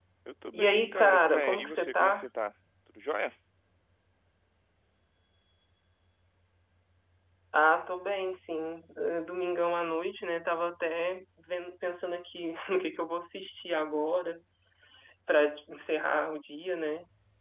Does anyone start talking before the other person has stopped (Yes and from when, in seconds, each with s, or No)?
Yes, from 0.5 s